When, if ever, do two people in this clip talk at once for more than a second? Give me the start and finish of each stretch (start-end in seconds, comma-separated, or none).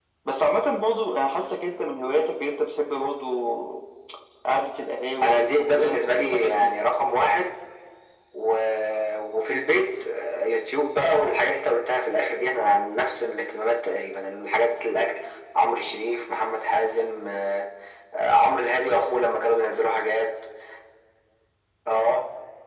5.2-6.7